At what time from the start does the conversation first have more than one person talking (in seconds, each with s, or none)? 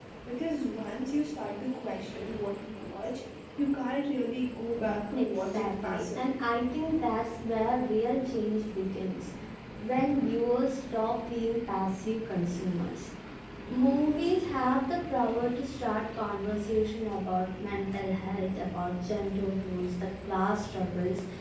5.2 s